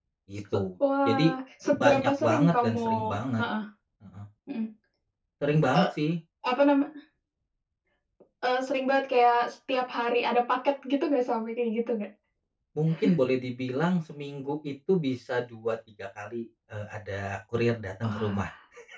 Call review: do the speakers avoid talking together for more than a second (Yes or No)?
No